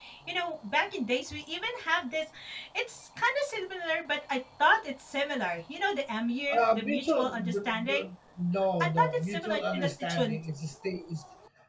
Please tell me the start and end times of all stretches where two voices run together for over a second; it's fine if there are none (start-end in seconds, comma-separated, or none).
6.5-8.1, 8.8-10.4